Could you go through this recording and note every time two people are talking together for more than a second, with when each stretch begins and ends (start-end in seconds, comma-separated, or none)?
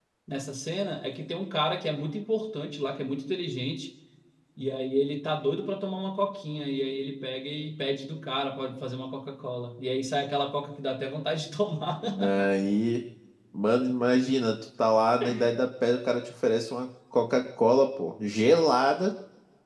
none